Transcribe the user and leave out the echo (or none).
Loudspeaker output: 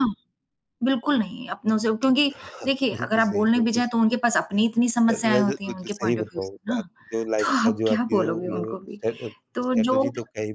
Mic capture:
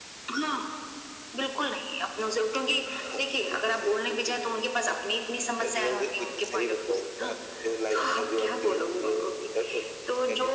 none